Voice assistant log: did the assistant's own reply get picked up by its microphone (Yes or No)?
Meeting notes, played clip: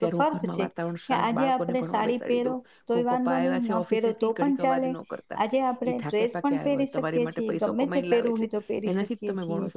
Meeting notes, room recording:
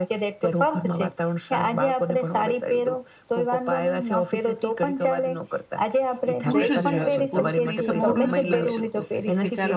Yes